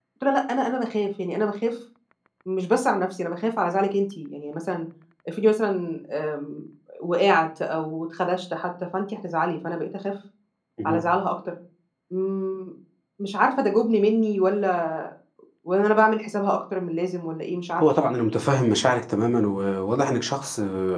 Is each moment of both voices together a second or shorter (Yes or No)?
Yes